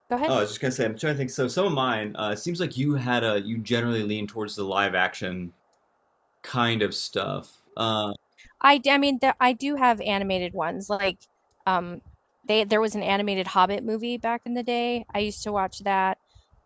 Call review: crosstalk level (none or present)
none